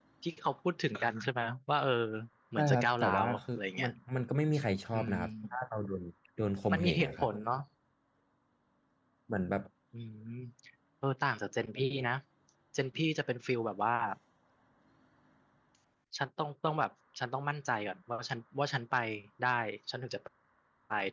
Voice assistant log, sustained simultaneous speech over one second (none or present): present